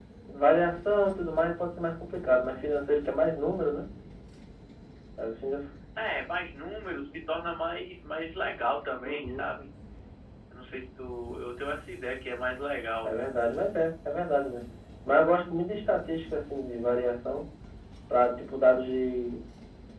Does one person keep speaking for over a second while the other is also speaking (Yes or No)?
No